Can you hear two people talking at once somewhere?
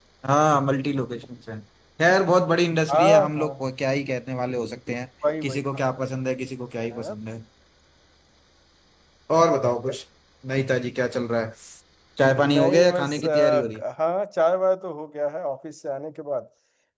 Yes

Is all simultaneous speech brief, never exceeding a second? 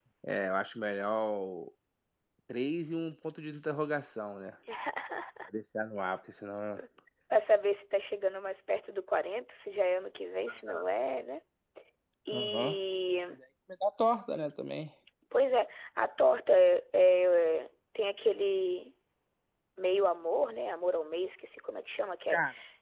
Yes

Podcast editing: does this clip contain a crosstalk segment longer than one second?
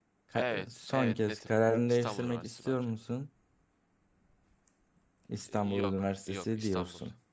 Yes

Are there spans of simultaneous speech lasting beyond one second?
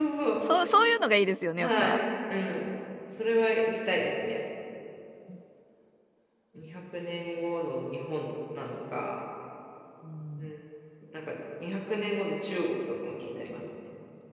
No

